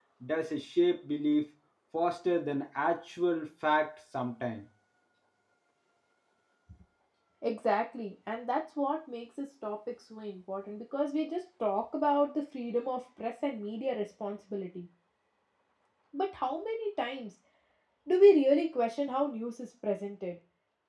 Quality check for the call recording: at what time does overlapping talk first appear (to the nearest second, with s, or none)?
none